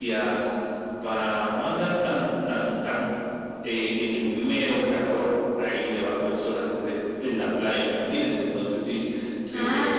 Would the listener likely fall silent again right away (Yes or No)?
No